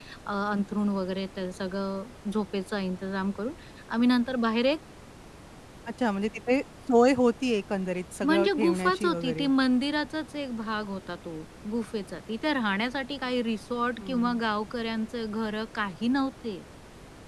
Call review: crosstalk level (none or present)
present